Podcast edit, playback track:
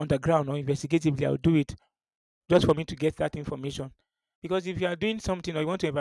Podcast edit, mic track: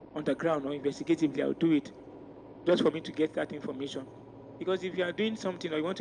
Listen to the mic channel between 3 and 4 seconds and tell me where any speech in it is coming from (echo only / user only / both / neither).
echo only